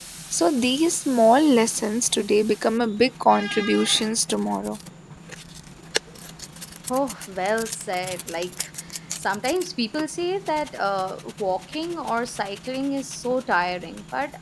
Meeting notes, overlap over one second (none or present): none